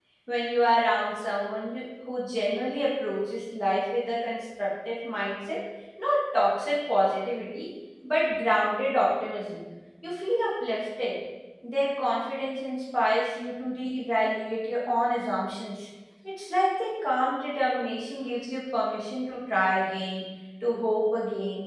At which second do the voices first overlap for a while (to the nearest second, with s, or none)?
none